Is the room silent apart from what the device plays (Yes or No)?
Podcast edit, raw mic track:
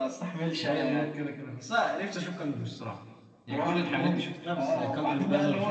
No